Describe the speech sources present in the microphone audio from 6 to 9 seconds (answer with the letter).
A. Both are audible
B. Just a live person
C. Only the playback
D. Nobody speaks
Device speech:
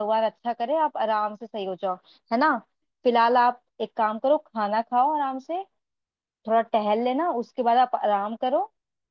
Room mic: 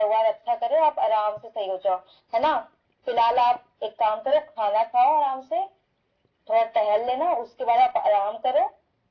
C